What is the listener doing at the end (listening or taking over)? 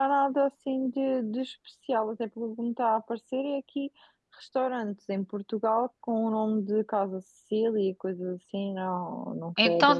taking over